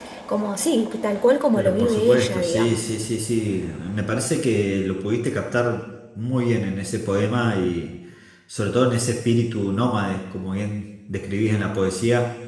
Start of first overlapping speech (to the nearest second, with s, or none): 2 s